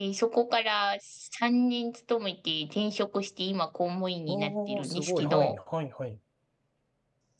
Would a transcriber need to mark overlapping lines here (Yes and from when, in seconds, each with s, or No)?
Yes, from 4.3 s